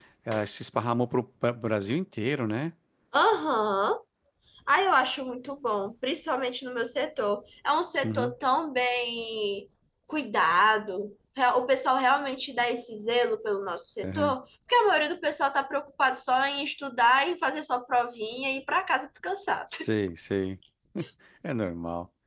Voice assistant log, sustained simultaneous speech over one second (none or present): none